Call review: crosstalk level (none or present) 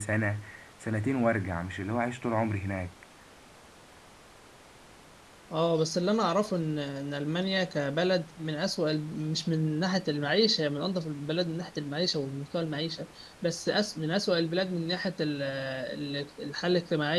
none